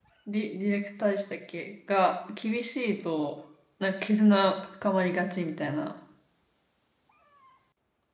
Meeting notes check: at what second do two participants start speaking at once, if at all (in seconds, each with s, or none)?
none